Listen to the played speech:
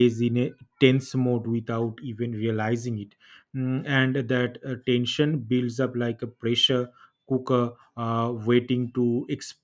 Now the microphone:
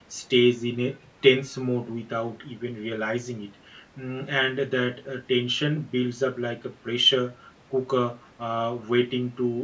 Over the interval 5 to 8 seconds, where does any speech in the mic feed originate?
echo only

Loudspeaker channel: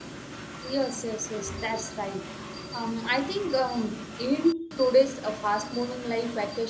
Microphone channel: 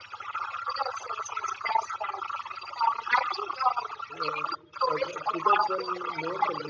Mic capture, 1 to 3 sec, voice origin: echo only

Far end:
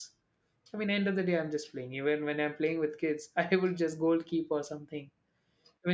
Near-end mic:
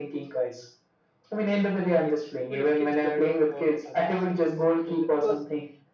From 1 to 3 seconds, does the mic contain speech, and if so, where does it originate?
both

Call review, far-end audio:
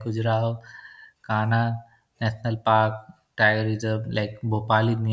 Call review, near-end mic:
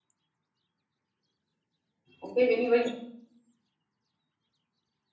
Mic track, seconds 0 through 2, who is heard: neither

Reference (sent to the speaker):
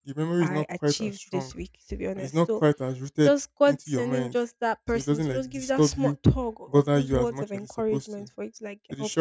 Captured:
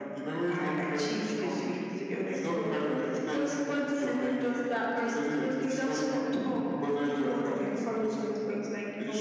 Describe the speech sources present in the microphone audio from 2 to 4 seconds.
echo only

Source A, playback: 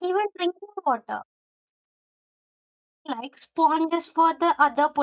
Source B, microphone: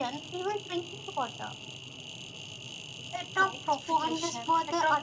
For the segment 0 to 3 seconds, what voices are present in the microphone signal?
echo only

